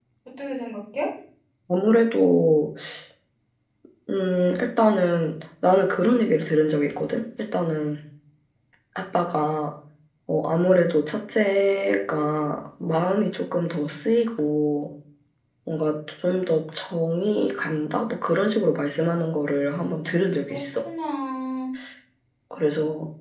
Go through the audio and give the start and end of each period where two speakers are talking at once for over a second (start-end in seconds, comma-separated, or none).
none